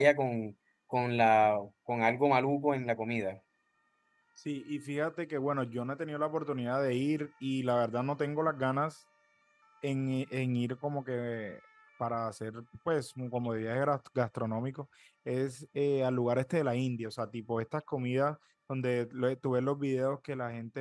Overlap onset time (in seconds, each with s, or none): none